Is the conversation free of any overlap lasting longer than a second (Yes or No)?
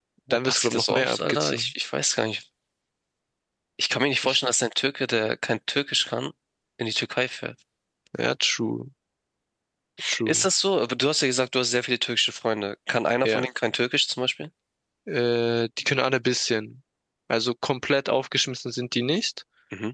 No